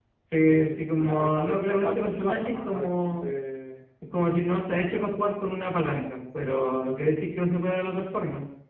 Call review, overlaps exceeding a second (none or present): present